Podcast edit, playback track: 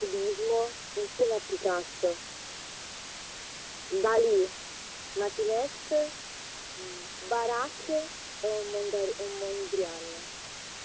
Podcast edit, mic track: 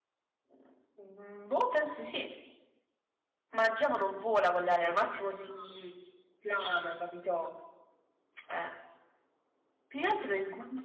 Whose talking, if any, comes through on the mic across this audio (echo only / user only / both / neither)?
user only